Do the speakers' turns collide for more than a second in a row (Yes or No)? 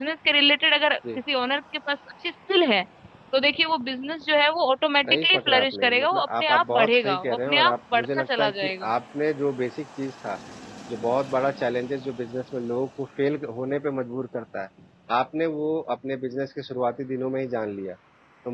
Yes